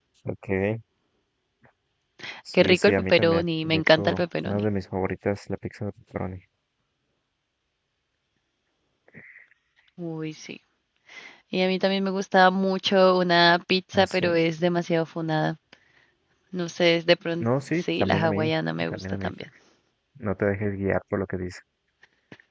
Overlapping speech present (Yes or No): Yes